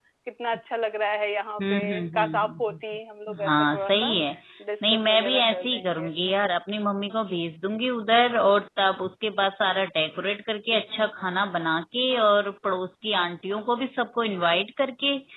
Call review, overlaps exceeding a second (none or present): present